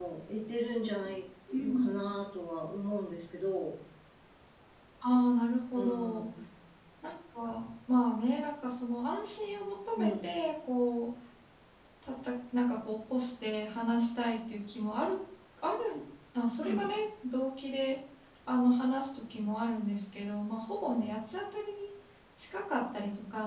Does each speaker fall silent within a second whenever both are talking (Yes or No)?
Yes